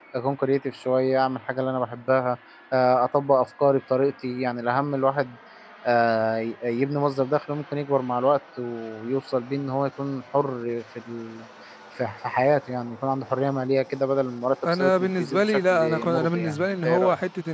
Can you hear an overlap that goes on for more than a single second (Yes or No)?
Yes